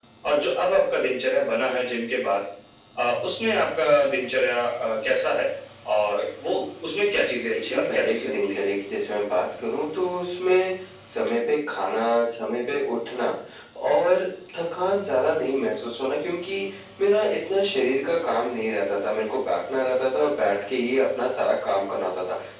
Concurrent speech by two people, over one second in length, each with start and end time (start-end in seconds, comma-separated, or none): 7.4-8.6